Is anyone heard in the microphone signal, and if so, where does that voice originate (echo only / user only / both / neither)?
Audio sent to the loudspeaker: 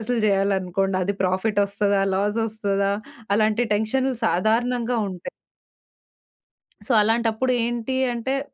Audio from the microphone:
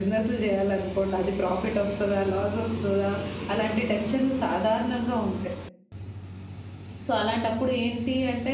echo only